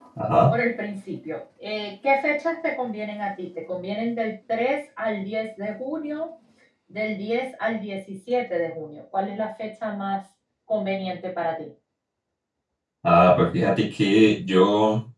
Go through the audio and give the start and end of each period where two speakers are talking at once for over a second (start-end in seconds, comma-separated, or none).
none